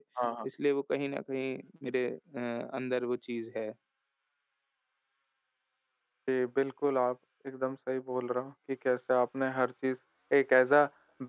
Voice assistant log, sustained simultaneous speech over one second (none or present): none